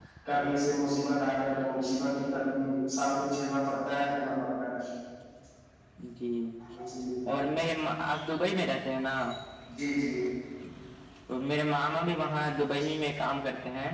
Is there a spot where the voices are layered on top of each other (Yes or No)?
No